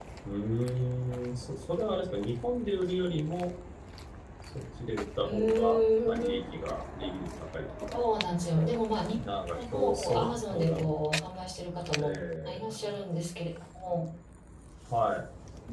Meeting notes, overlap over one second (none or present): present